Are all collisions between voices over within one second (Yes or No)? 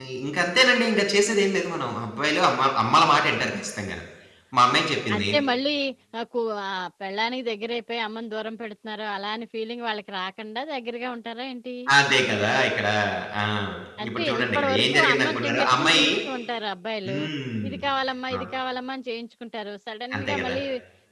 No